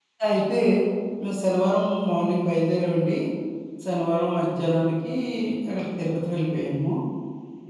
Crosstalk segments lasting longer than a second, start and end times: none

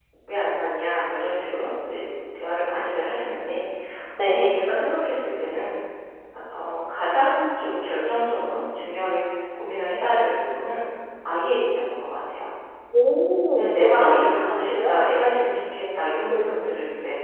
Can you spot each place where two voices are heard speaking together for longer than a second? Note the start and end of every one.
13.6-15.0

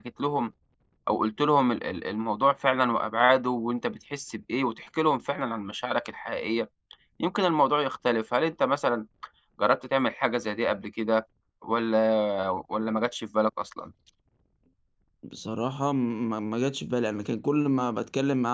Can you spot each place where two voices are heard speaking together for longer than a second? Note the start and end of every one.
none

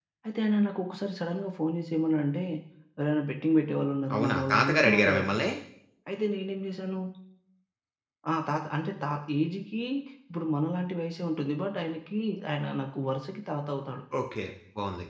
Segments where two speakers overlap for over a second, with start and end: 4.2-5.3

